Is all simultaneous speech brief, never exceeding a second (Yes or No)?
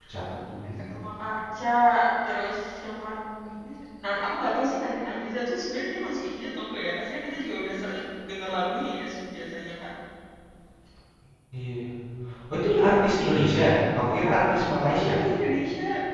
Yes